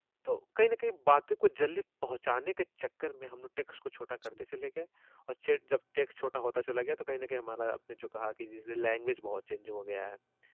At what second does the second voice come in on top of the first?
none

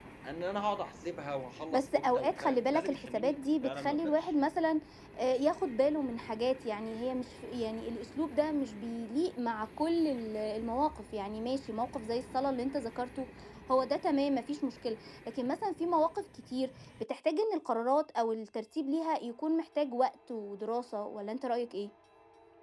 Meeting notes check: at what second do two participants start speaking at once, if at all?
1.7 s

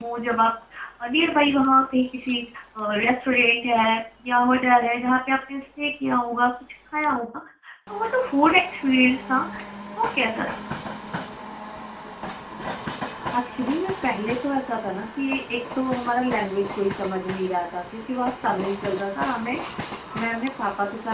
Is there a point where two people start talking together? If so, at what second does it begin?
none

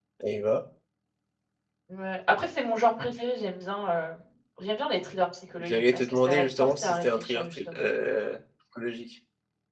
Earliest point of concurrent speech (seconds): 5.6 s

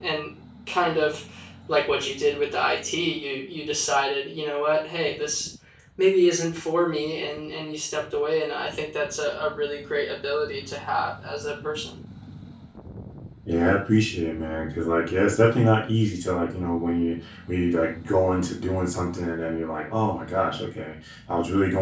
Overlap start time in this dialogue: none

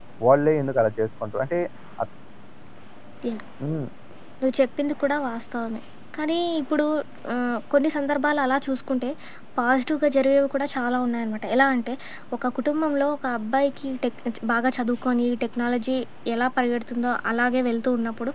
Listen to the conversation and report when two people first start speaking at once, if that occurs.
none

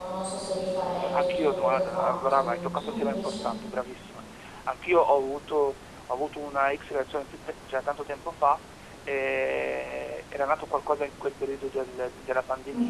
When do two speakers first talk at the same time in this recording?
0.9 s

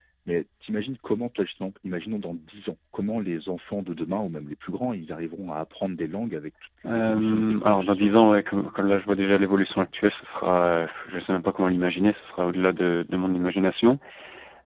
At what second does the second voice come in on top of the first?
6.8 s

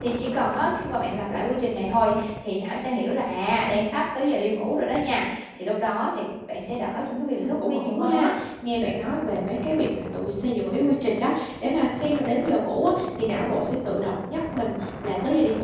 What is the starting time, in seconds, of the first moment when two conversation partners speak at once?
7.0 s

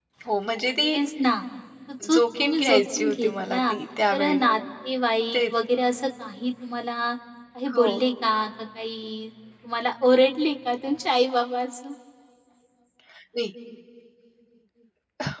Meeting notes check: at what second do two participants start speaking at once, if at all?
2.1 s

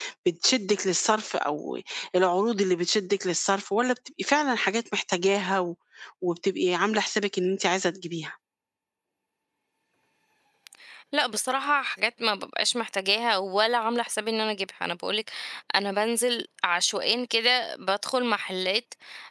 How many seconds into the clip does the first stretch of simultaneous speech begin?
none

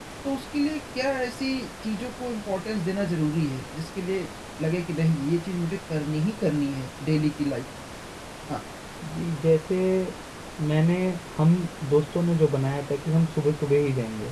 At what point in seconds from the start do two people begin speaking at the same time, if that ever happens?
none

